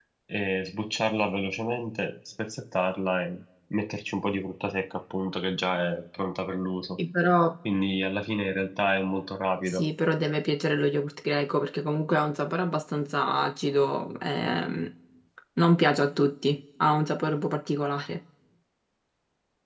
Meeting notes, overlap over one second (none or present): none